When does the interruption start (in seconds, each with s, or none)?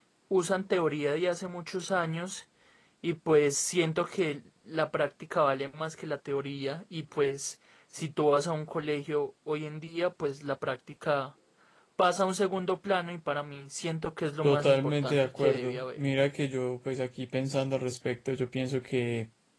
14.4 s